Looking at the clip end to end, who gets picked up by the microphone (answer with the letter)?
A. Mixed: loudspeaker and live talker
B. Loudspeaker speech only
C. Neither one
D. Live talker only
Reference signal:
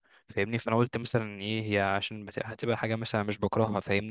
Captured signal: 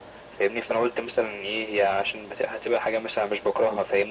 B